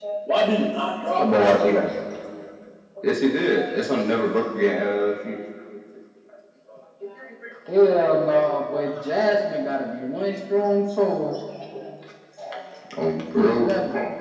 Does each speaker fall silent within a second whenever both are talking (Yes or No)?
Yes